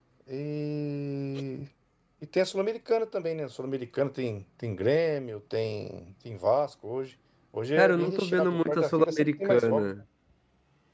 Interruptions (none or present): present